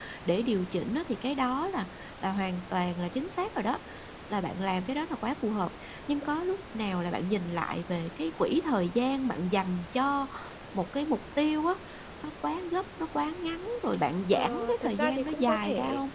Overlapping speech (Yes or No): Yes